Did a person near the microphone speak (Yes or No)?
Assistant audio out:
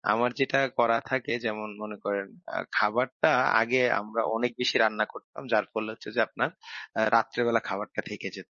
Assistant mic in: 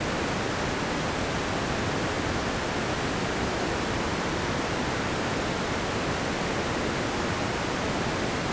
No